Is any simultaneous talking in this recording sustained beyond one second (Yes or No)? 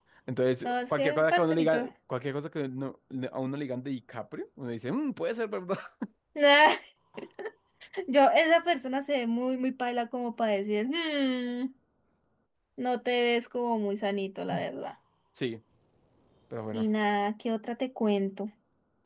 Yes